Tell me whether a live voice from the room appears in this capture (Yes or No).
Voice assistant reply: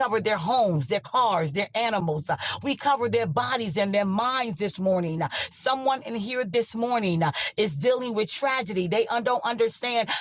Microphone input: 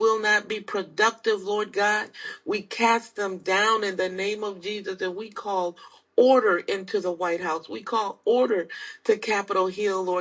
Yes